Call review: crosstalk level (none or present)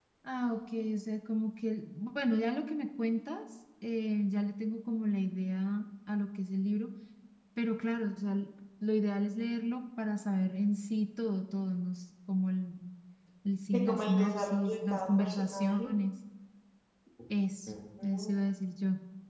present